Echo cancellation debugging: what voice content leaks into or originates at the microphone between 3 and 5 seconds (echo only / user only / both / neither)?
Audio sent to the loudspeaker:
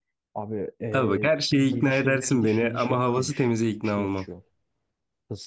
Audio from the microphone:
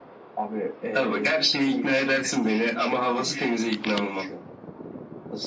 echo only